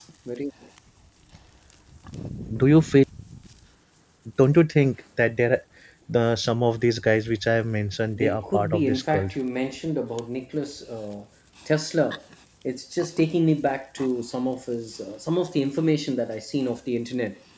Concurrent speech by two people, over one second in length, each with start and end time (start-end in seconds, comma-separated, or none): 8.2-9.4